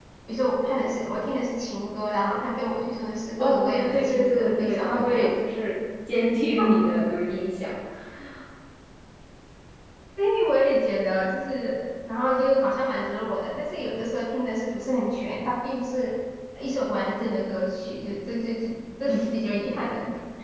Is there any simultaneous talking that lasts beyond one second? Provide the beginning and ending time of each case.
3.4-5.2

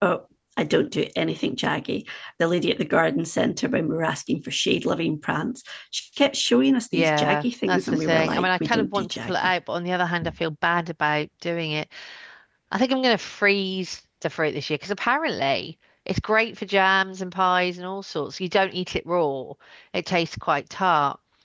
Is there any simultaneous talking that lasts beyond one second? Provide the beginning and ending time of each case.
6.9-9.5

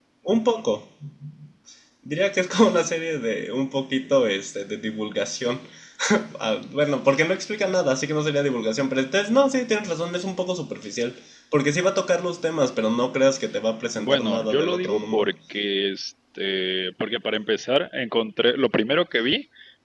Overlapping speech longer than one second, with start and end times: 14.0-15.3

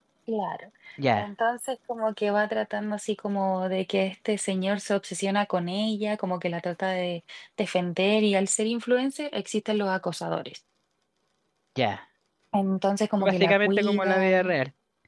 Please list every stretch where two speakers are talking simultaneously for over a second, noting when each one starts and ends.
13.2-14.6

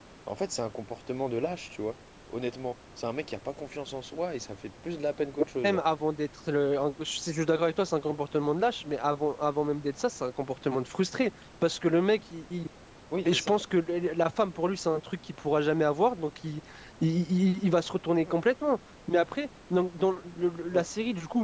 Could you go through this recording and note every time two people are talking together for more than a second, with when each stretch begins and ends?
none

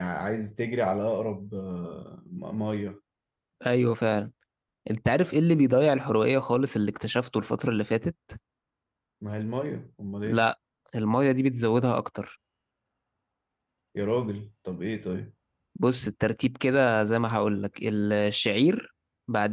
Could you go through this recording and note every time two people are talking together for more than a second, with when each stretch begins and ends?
none

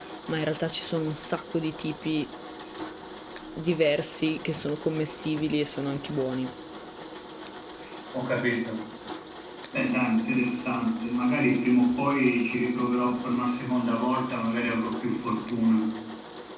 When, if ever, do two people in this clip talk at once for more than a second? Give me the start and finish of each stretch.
none

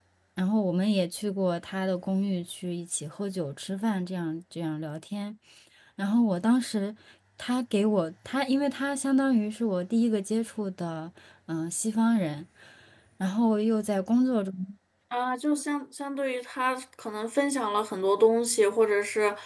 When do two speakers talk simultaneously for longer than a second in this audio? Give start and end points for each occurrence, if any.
none

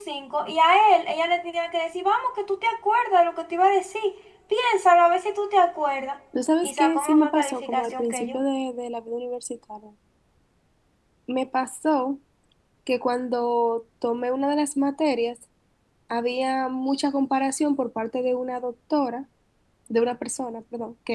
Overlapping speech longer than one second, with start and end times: 6.6-8.4

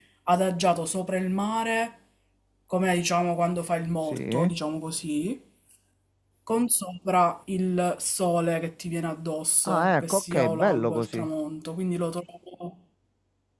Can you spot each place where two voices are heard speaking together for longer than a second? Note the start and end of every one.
9.7-11.3

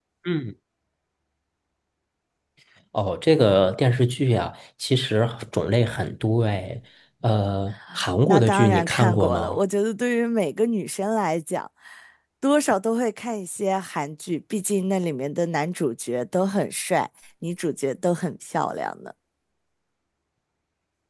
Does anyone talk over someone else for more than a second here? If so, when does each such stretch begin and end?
8.3-9.6

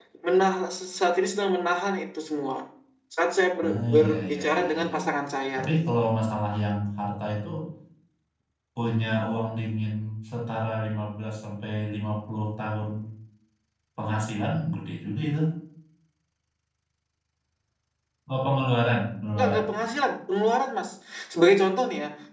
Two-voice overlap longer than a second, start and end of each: 3.7-4.9

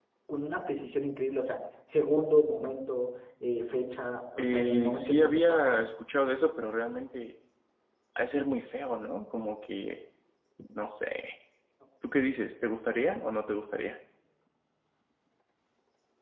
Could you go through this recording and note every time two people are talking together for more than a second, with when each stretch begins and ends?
4.4-5.8

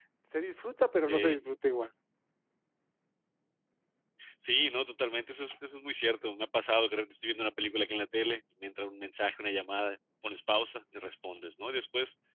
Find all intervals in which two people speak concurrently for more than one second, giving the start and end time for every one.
none

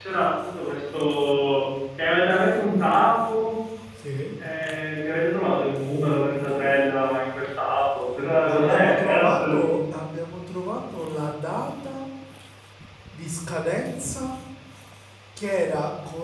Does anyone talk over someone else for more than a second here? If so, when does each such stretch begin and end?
8.5-9.7

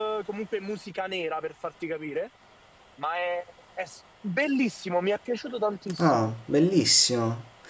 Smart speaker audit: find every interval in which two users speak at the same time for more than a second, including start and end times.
none

